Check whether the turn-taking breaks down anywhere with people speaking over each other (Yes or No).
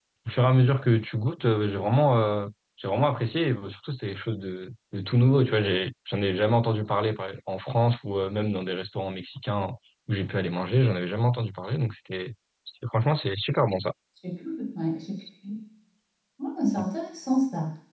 No